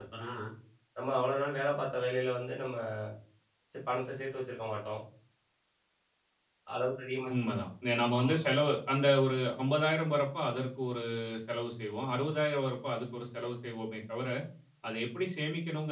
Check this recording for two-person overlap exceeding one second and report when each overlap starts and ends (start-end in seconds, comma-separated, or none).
none